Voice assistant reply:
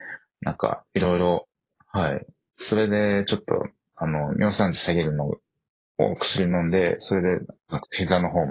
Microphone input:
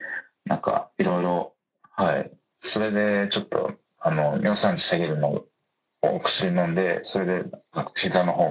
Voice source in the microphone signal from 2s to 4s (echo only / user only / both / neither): echo only